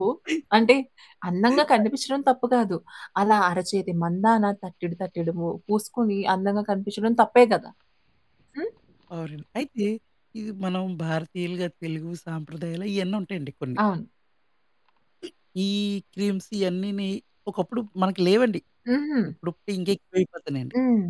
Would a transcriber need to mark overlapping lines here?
No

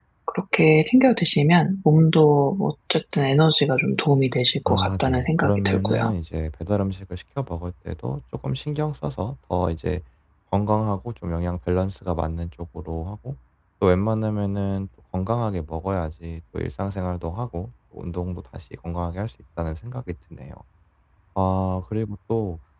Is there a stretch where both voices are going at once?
Yes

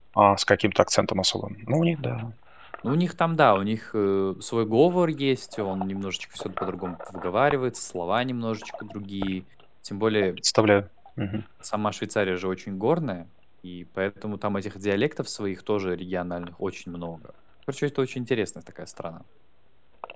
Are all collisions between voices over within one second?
Yes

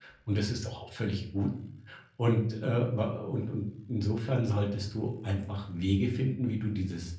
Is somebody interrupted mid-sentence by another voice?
No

